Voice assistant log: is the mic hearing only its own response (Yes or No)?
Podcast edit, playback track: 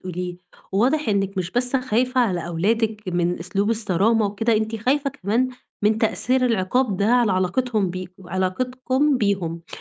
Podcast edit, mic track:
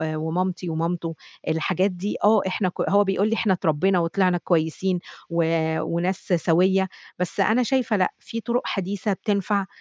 No